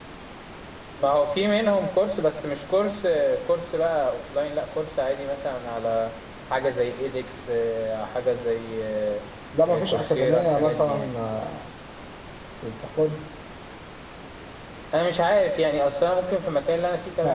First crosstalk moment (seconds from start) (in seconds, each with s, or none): 9.7 s